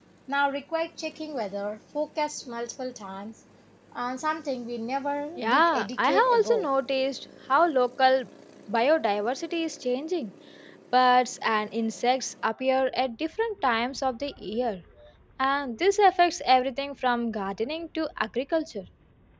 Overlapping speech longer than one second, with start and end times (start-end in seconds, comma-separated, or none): 5.4-6.7